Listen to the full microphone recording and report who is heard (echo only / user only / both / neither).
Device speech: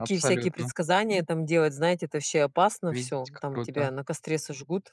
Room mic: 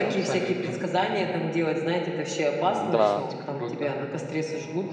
both